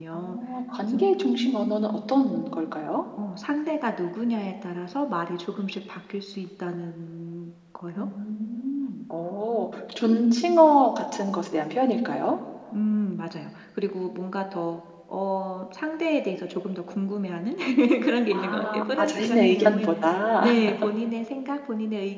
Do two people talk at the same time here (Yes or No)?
Yes